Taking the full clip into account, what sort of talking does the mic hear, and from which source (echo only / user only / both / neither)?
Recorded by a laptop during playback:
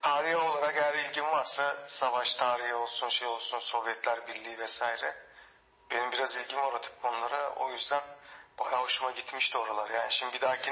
echo only